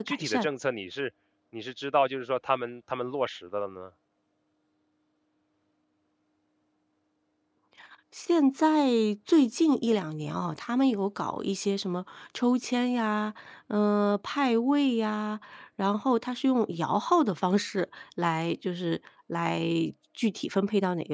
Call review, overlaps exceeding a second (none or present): none